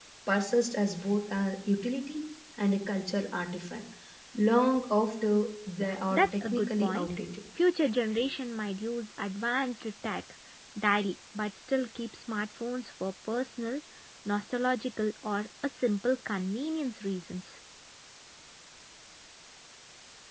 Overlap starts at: 6 s

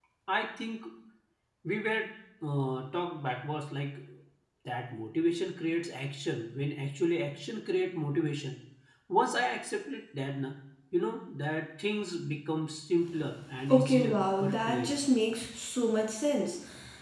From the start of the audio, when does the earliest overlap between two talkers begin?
14 s

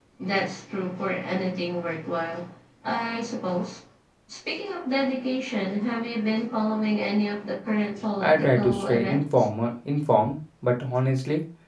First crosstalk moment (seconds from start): 8 s

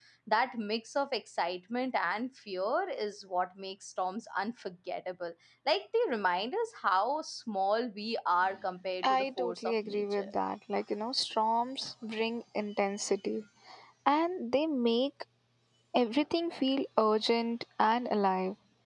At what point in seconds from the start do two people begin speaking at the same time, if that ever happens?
9 s

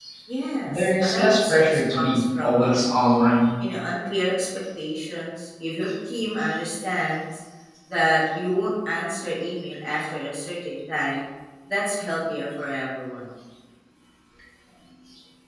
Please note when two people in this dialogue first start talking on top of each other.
1 s

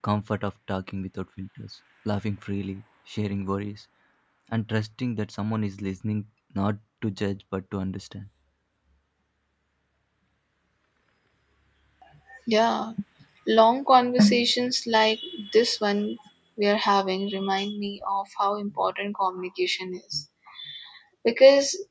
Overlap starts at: none

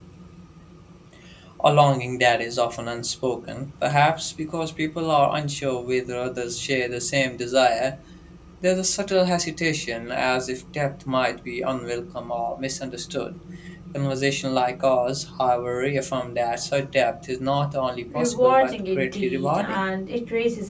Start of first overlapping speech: 18 s

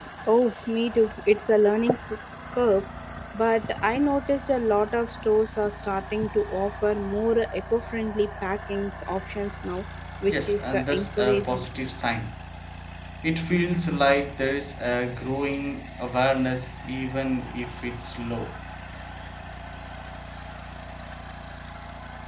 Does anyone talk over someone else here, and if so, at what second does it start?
10 s

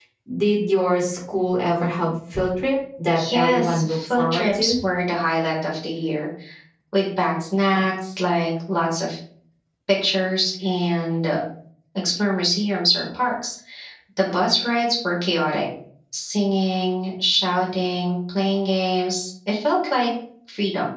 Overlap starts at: 3 s

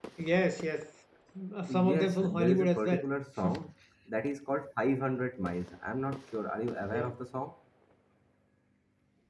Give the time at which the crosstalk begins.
2 s

